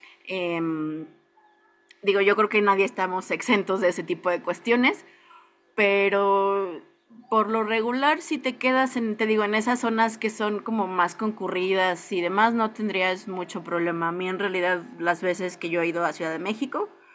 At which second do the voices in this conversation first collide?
none

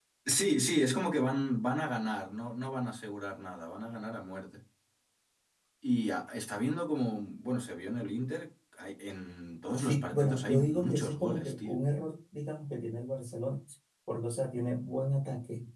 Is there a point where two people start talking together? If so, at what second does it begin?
10 s

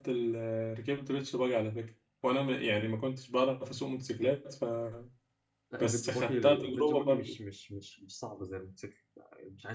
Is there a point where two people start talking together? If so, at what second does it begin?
6 s

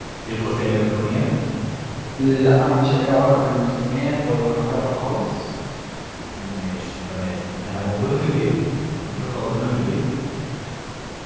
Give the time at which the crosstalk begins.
none

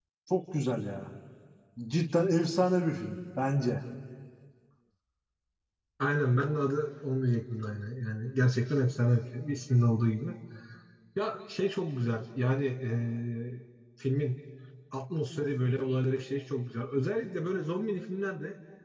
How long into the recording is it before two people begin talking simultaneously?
none

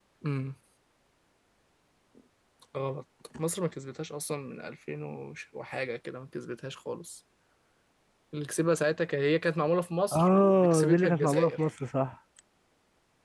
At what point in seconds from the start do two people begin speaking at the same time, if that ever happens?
10 s

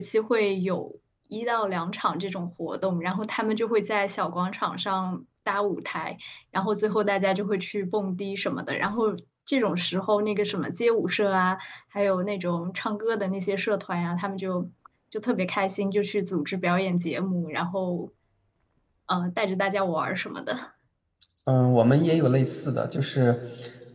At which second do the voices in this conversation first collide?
none

